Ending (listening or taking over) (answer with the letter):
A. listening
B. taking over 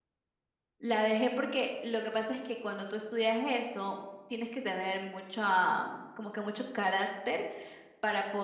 A